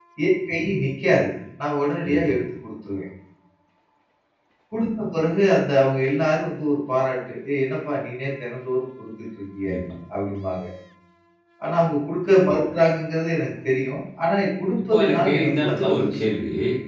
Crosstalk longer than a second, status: present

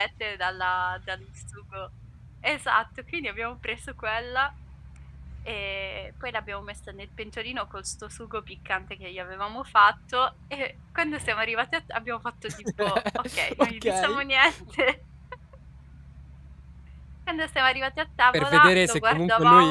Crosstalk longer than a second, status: present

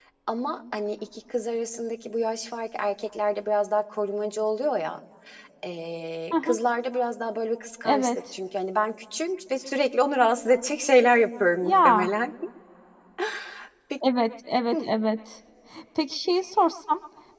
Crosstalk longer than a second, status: none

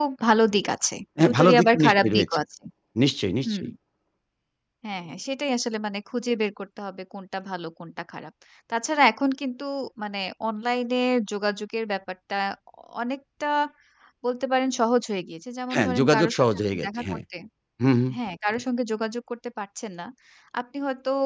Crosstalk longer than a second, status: present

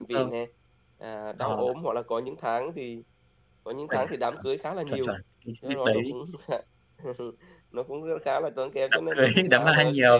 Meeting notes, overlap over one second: present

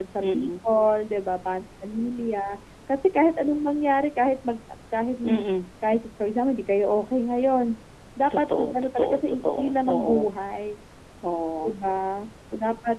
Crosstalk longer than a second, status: present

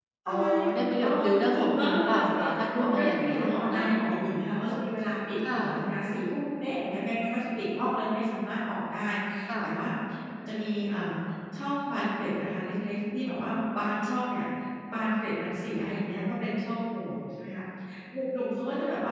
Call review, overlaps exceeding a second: present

